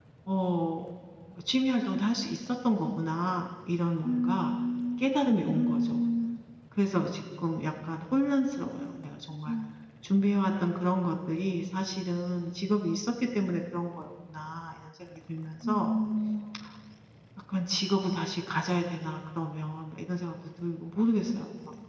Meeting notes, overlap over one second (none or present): none